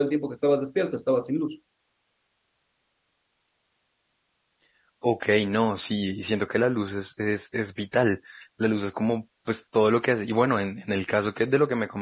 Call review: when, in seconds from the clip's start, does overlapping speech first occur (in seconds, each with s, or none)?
none